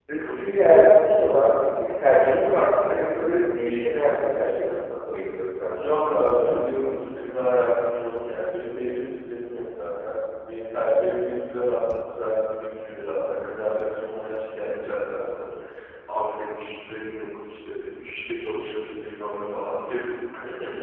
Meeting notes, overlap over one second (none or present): none